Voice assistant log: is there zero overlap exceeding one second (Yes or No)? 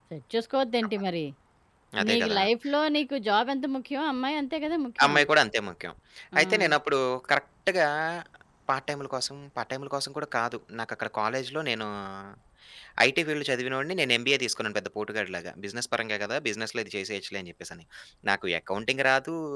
Yes